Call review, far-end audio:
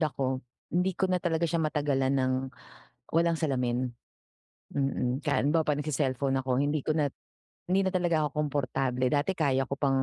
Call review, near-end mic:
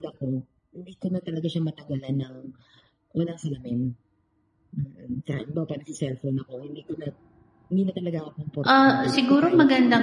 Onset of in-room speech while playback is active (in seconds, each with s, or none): 8.7 s